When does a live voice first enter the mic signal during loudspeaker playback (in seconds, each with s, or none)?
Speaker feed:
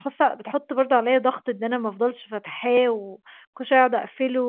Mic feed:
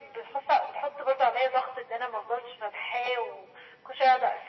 none